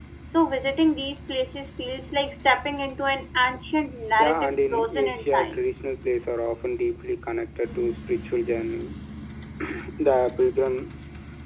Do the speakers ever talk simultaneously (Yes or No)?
Yes